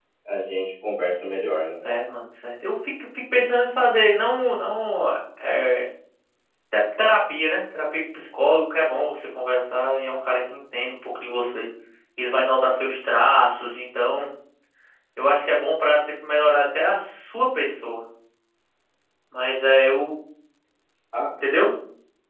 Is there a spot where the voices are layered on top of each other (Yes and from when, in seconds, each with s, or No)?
No